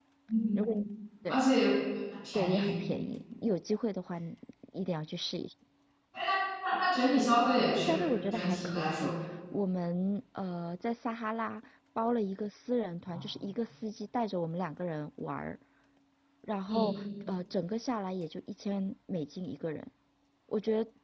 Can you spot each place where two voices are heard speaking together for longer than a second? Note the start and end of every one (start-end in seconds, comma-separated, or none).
7.7-9.1